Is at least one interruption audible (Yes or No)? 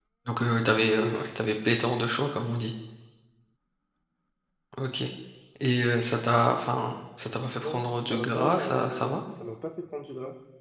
Yes